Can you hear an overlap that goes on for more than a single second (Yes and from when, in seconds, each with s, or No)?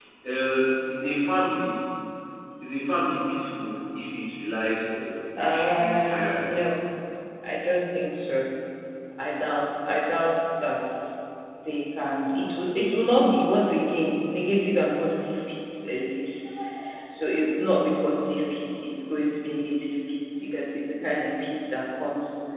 Yes, from 5.4 s